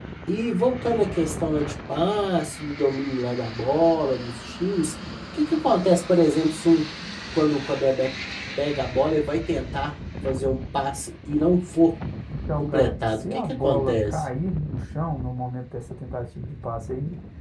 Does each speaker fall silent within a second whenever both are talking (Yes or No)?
No